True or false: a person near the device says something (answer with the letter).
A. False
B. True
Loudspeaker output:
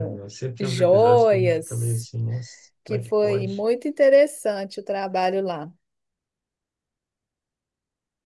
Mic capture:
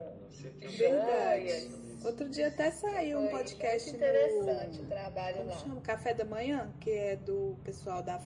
B